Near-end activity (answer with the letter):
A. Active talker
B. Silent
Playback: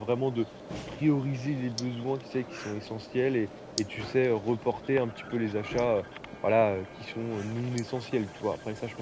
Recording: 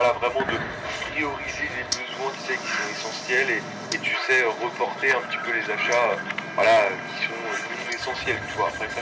B